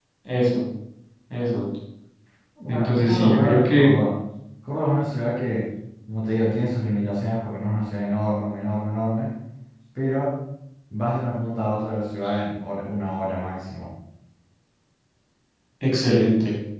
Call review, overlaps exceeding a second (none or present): present